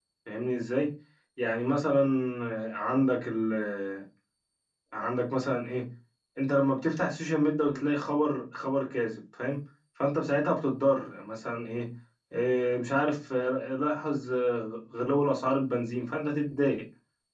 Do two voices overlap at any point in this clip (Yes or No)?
No